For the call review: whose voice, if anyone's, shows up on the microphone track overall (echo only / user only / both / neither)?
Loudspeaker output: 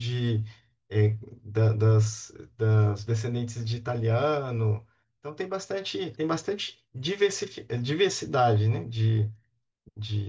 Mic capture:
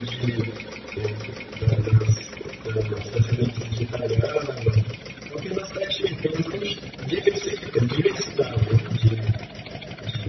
echo only